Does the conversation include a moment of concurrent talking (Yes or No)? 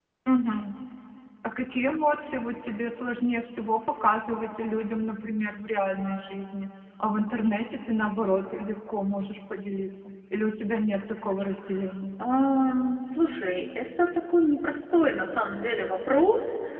No